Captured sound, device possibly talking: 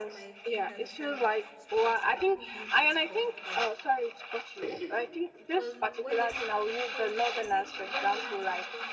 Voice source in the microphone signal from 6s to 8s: both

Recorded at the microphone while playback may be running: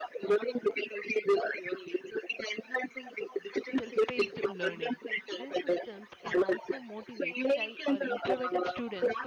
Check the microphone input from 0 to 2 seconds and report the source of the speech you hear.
echo only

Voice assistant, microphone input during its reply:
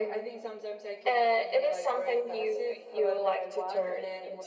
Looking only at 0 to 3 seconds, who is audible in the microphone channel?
echo only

